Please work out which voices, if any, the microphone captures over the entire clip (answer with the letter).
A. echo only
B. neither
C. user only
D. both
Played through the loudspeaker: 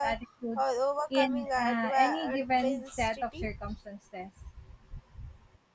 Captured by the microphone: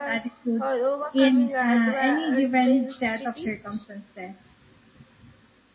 A